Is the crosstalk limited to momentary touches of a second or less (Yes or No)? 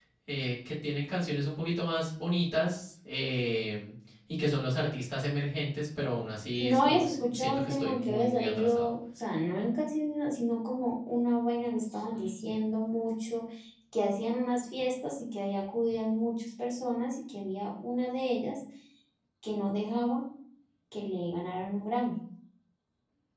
No